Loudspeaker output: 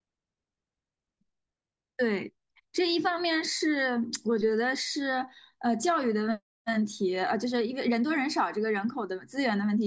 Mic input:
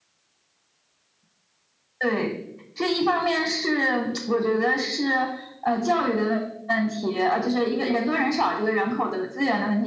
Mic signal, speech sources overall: echo only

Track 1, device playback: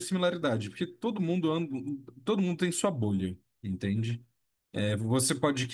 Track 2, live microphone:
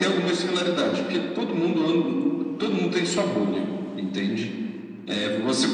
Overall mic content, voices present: echo only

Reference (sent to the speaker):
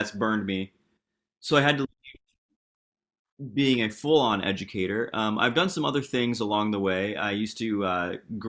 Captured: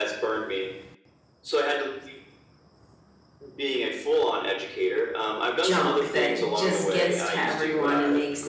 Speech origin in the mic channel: both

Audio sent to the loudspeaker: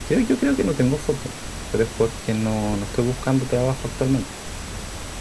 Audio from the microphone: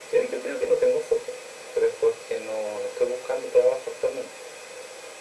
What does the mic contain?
echo only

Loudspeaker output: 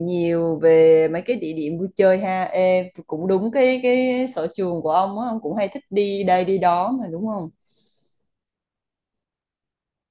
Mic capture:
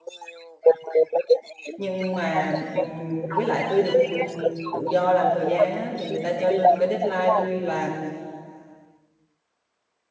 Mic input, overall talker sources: both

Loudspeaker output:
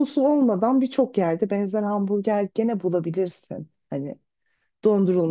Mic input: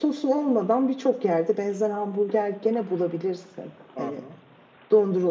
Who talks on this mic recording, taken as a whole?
both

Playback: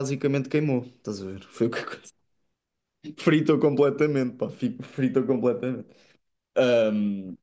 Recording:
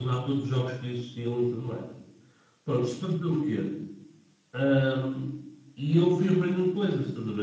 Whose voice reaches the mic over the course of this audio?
user only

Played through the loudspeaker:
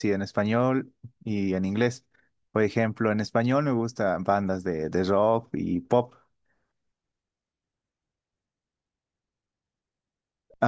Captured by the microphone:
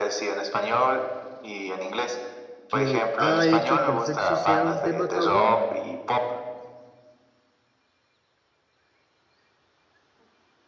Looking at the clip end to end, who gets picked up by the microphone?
both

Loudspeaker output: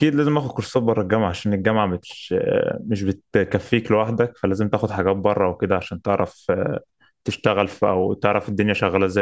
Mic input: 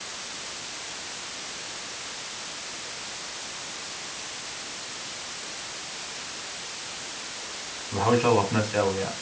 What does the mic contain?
user only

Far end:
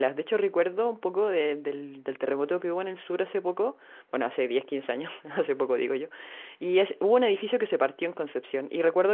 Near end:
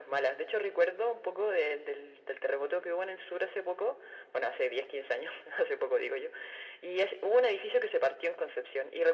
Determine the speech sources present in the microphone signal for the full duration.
echo only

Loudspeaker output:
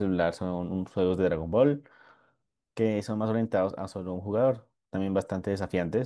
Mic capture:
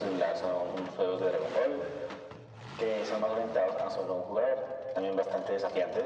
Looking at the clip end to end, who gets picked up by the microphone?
echo only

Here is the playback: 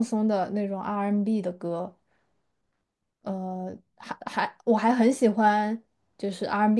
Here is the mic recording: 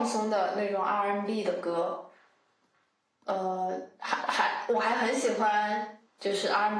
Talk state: echo only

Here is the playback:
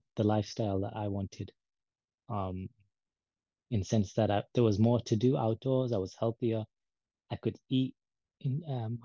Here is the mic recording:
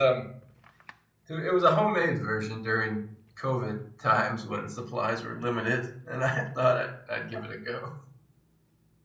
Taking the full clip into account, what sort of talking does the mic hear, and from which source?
user only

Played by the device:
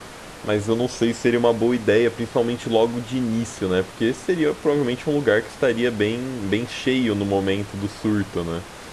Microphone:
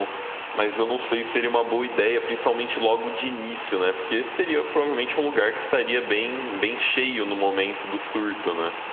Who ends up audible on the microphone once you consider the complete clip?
echo only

